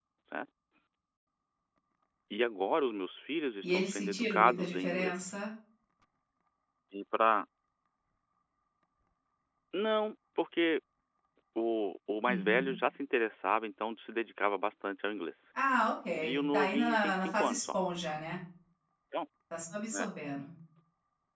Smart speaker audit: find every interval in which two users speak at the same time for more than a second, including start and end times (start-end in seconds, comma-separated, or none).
3.6-5.1, 16.2-17.8